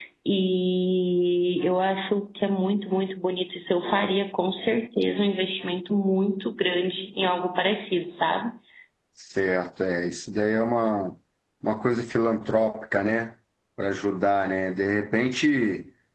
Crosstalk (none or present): none